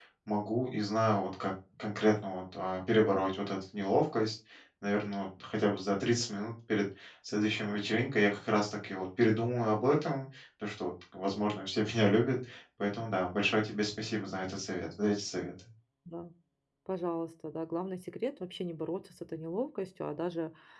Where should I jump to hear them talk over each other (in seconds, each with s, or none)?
none